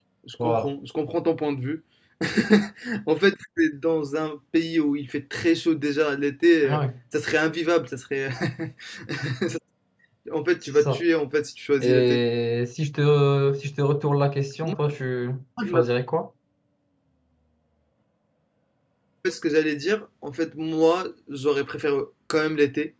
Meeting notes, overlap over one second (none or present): none